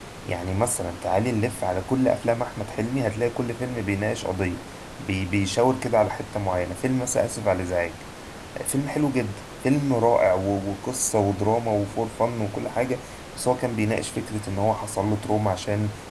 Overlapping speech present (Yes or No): No